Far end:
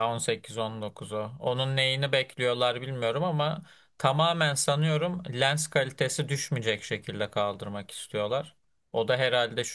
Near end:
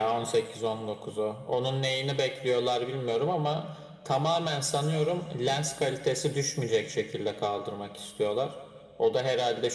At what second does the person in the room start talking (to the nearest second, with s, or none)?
none